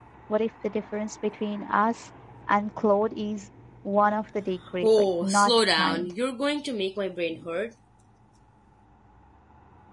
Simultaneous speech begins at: 4.8 s

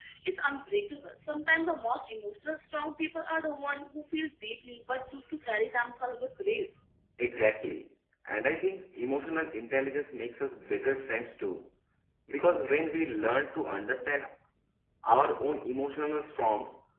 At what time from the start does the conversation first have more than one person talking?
none

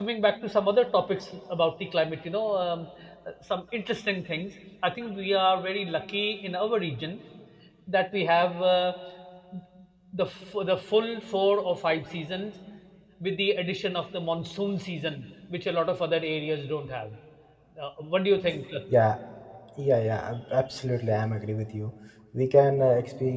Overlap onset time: none

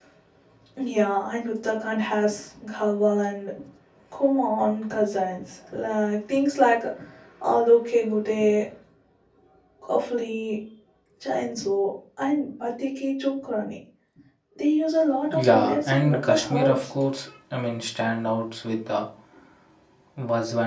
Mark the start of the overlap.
15.3 s

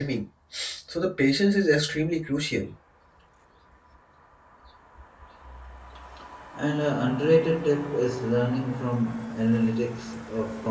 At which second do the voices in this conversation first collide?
none

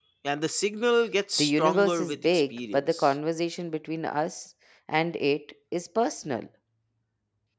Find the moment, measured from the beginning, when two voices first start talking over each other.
1.4 s

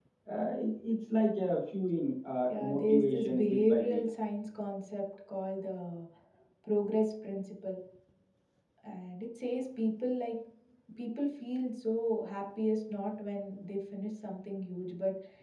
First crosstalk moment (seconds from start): 2.4 s

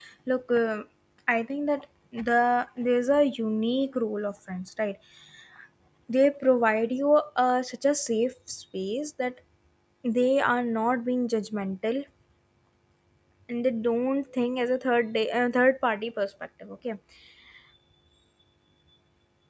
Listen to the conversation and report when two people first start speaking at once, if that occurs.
none

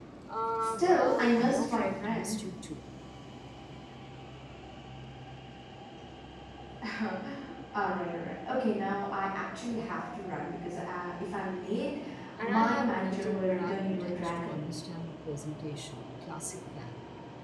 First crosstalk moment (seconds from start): 0.6 s

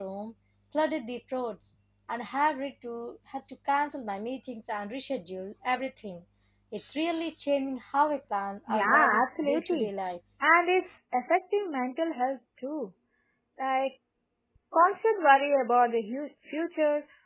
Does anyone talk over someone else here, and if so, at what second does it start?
8.7 s

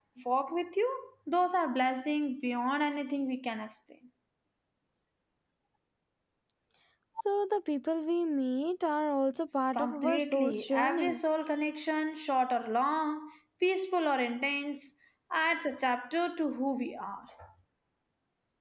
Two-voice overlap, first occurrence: 9.8 s

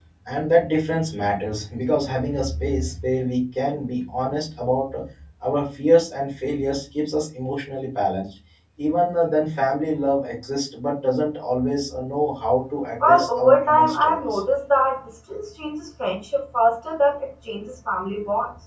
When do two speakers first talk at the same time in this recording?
13.0 s

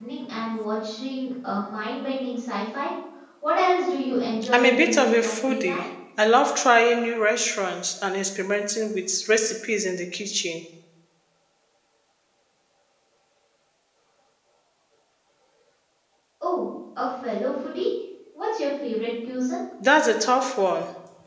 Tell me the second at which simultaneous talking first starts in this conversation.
4.4 s

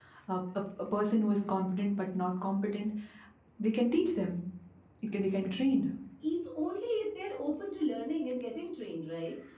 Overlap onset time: none

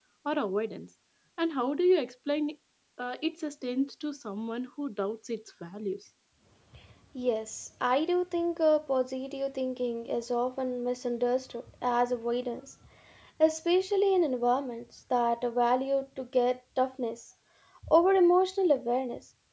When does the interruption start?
none

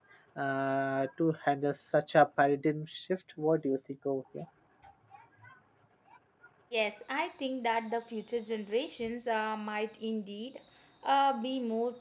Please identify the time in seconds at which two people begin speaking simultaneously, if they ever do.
none

